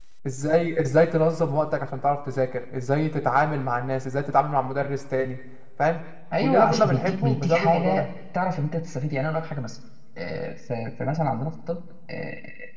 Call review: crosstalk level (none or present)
present